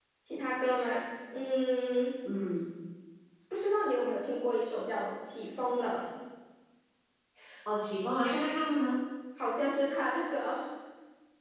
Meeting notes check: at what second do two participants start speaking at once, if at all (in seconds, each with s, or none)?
none